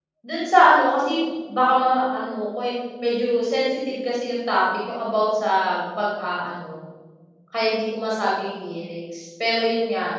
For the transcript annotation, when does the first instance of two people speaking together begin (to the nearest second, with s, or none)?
none